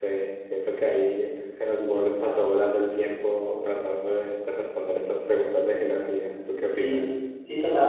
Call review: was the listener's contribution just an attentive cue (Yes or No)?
No